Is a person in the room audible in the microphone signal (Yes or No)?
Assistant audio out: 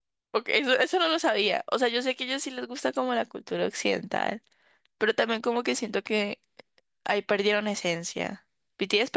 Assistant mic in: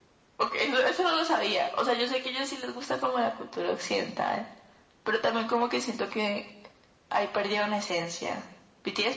No